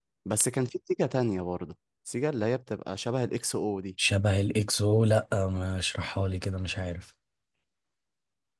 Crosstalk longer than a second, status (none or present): none